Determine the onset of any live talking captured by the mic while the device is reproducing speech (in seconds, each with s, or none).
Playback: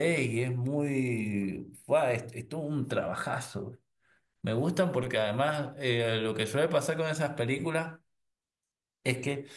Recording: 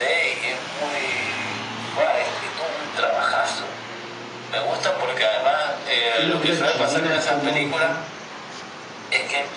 6.1 s